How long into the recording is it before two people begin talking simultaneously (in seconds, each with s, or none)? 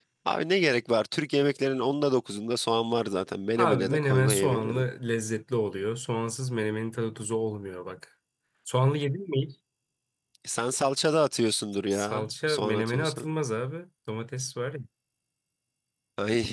3.6 s